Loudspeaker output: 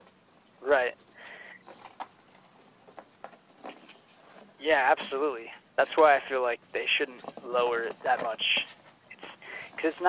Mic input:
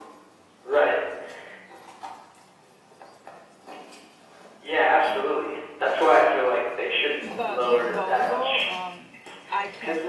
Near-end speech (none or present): present